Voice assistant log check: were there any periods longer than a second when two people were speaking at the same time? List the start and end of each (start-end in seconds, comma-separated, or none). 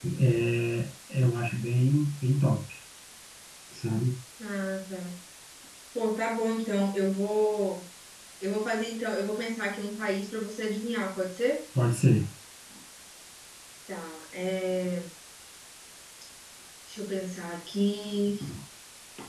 none